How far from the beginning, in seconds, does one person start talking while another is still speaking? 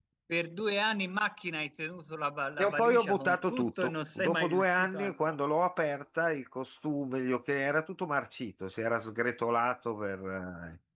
2.6 s

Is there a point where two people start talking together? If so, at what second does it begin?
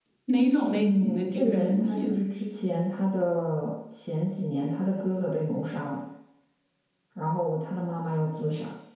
0.7 s

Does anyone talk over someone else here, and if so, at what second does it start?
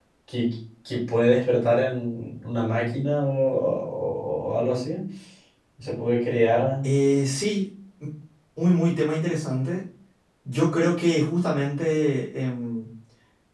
none

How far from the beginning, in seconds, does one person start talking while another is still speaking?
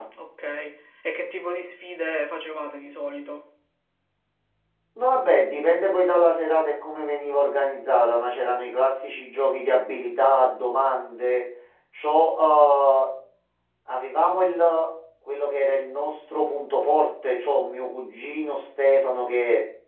none

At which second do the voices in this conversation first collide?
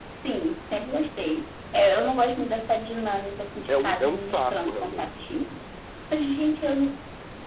3.7 s

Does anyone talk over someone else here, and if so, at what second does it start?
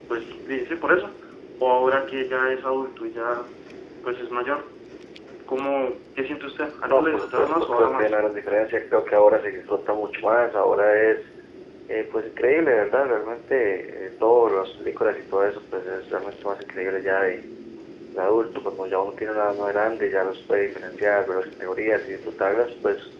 6.9 s

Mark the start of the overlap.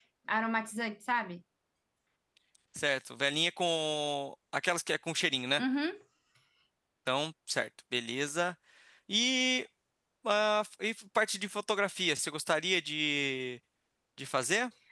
none

